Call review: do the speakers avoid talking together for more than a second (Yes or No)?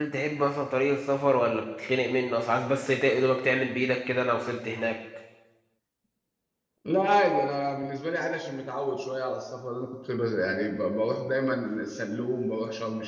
Yes